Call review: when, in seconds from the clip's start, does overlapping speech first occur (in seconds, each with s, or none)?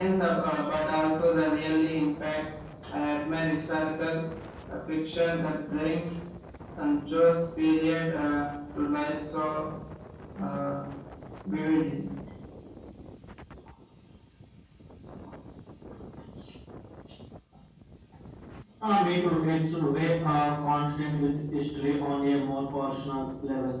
none